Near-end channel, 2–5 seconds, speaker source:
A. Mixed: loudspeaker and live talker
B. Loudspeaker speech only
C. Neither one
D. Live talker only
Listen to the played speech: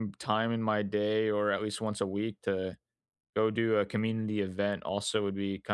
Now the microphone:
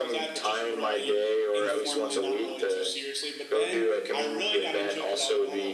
A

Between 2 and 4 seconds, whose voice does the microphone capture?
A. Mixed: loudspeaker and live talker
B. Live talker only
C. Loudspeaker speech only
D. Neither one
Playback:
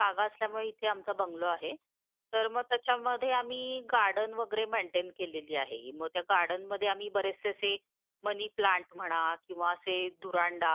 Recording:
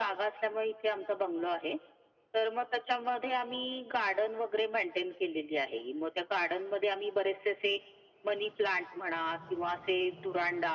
C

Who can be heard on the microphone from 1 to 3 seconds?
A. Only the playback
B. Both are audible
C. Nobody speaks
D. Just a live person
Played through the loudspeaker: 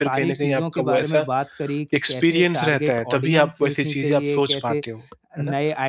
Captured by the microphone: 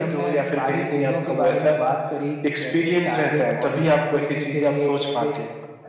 A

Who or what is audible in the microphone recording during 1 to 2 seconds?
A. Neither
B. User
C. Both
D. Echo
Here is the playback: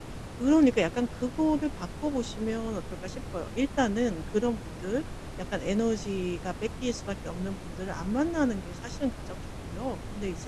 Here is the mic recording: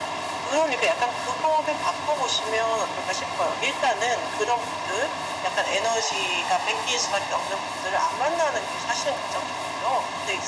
D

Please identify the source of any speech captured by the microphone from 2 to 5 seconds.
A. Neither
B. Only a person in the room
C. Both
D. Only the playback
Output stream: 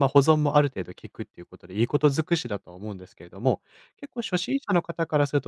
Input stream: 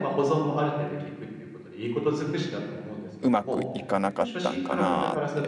C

